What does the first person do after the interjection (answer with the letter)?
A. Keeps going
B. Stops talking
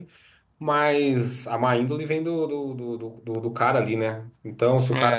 A